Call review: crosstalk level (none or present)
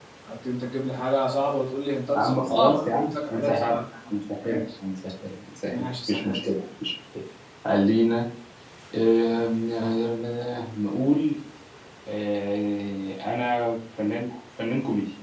present